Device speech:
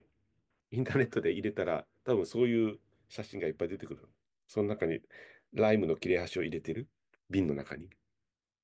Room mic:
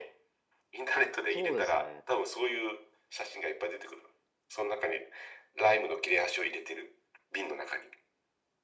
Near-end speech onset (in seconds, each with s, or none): 1.3 s